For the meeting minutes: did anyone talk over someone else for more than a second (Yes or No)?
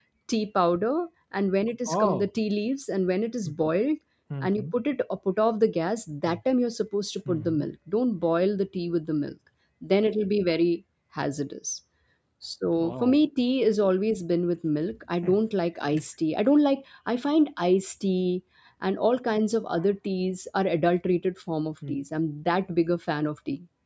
No